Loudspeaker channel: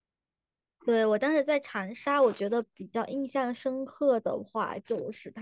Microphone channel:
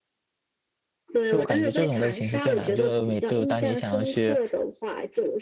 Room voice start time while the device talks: 1 s

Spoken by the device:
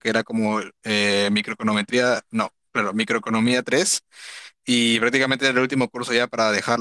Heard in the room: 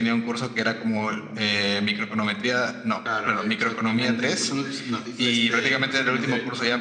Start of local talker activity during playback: 3 s

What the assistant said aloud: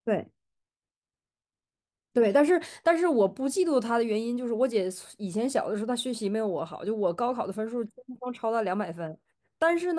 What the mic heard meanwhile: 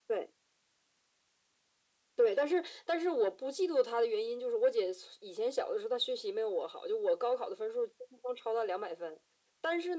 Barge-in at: none

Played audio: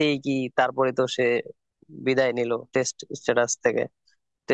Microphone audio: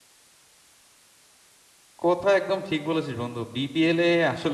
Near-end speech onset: 2 s

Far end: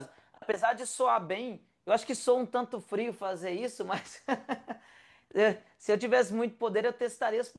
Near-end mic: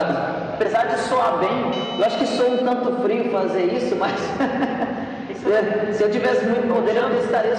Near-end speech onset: 5 s

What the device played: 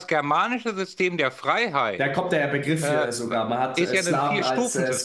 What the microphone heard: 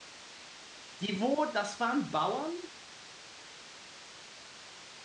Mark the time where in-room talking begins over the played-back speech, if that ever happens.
1 s

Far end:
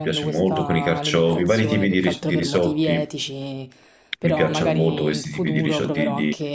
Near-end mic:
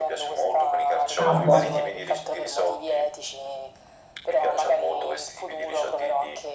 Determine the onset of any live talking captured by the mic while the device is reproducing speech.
1 s

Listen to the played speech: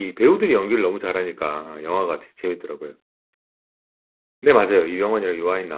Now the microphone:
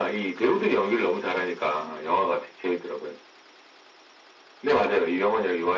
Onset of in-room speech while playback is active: none

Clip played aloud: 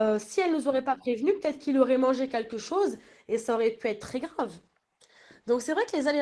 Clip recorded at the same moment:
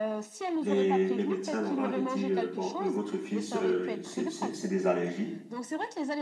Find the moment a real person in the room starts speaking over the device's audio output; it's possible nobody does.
1 s

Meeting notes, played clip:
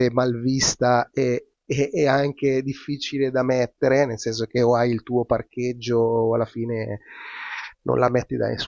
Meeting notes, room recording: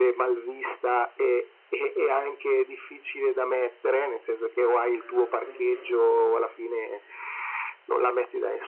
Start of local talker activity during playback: 5 s

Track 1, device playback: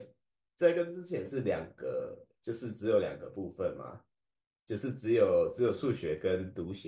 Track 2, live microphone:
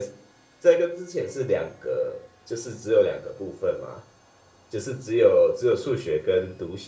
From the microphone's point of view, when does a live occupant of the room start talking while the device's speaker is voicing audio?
none

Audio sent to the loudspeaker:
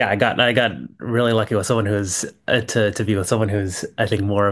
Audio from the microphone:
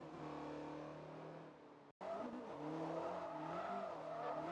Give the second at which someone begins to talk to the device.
none

